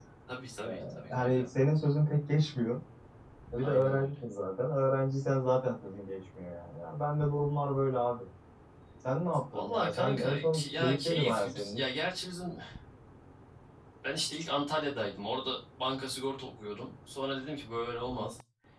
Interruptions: present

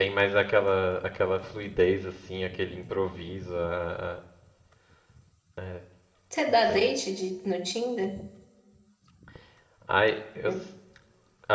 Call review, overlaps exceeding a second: none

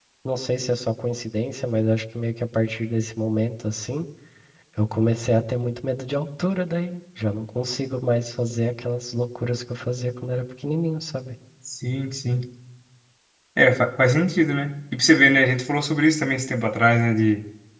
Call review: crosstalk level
none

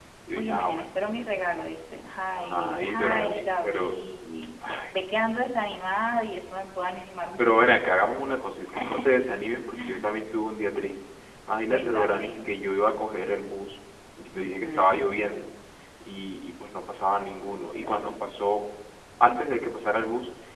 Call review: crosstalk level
present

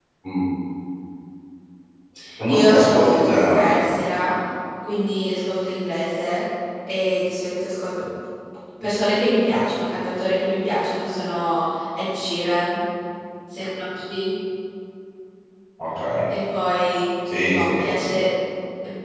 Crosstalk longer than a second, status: present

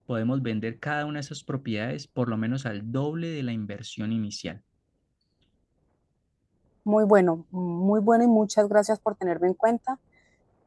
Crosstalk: none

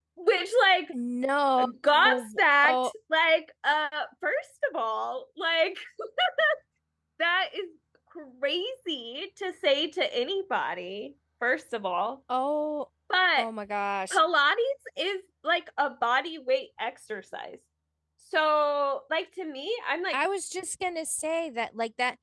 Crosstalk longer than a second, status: none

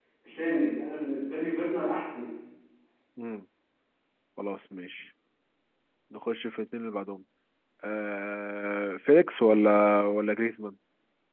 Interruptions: none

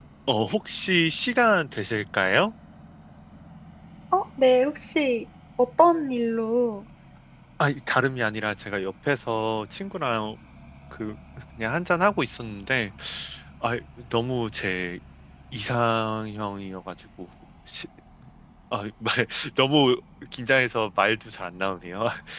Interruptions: none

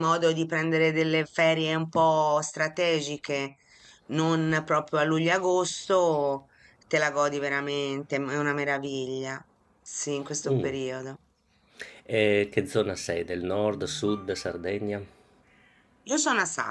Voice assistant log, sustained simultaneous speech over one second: none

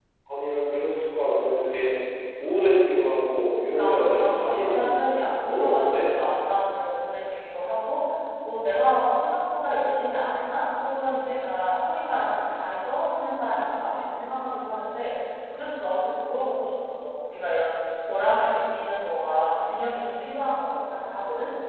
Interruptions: present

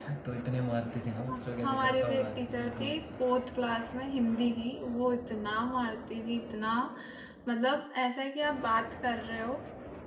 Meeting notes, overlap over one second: present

